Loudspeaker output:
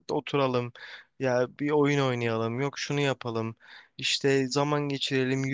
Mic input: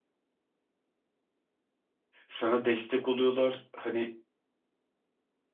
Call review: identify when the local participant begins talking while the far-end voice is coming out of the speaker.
2 s

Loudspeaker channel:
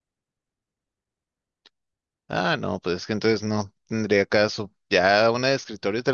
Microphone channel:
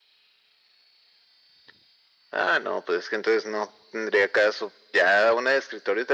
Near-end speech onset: none

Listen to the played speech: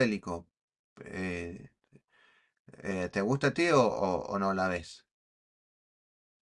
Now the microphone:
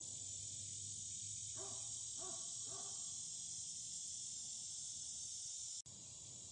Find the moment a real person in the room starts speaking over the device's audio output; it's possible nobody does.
none

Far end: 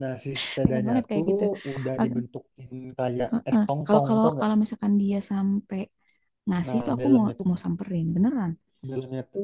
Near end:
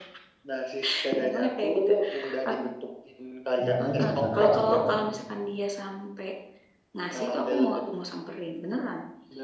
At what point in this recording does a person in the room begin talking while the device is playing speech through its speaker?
4 s

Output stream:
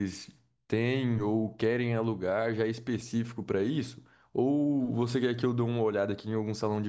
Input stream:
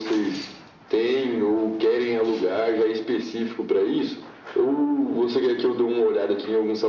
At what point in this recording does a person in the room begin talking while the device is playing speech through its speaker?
none

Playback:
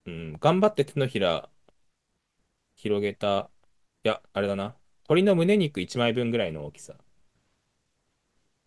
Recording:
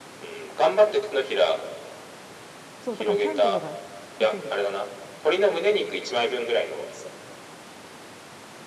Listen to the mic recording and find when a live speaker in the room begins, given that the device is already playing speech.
3 s

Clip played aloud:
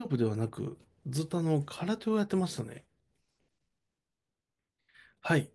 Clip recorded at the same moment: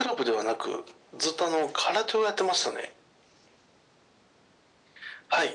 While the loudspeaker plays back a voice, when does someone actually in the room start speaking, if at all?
none

